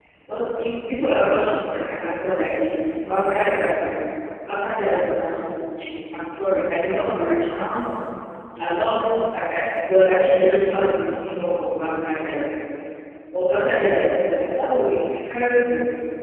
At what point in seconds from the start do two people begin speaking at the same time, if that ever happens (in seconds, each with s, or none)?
none